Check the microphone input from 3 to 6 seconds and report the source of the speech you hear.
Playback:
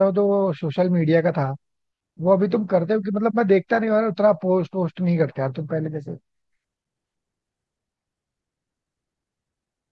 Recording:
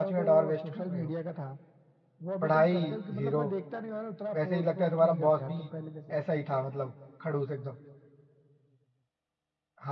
both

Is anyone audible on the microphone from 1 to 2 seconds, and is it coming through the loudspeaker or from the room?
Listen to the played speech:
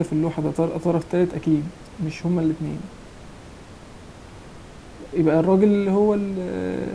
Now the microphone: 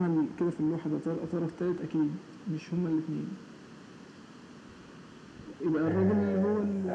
echo only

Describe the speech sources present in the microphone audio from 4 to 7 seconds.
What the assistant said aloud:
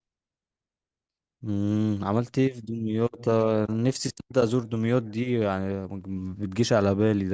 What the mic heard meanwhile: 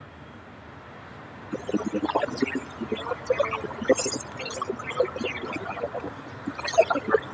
echo only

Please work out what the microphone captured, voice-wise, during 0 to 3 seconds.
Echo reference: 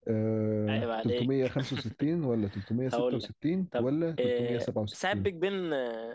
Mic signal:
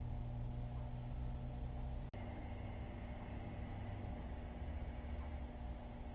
neither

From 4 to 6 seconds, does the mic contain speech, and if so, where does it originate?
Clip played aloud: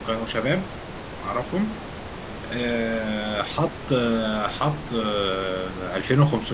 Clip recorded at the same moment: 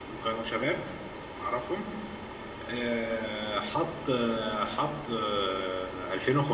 echo only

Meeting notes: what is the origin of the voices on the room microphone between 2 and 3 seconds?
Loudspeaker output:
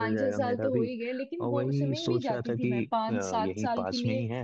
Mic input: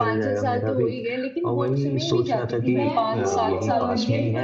both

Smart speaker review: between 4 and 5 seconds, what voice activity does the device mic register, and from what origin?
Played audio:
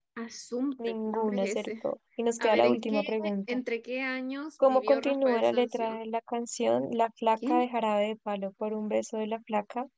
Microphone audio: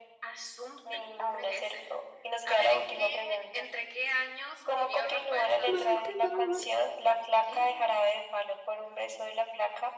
echo only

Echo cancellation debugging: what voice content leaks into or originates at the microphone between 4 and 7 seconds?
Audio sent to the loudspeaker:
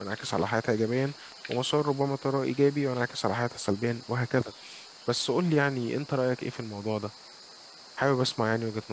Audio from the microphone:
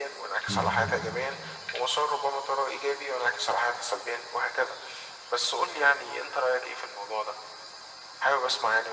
echo only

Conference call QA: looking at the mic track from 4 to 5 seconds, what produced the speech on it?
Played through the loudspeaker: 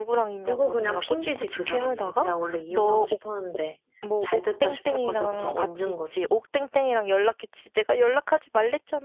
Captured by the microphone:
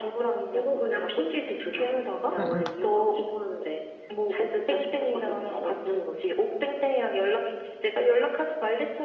echo only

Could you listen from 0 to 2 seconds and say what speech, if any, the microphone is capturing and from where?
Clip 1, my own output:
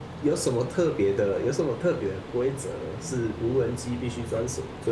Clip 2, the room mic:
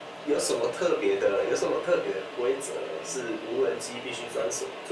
echo only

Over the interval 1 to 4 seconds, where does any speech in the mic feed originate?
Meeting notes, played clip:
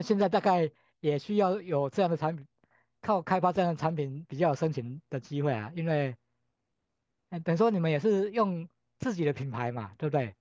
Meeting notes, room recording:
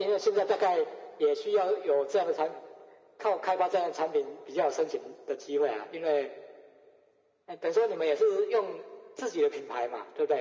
echo only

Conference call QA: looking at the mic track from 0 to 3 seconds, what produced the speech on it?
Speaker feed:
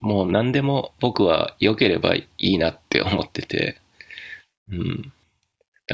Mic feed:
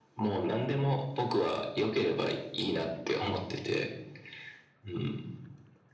echo only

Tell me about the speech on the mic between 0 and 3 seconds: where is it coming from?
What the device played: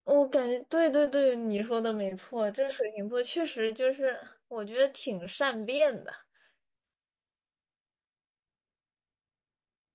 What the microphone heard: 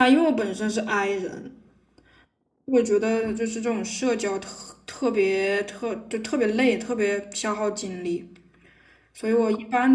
user only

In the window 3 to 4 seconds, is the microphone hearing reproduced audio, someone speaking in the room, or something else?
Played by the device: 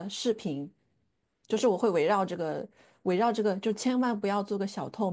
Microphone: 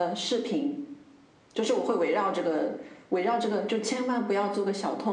echo only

